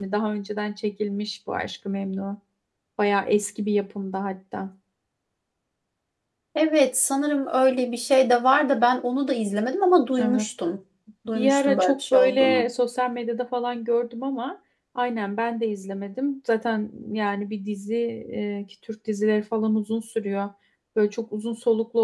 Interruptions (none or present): present